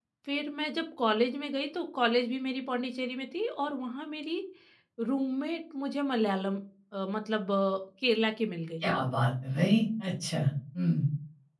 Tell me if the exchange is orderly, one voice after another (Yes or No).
Yes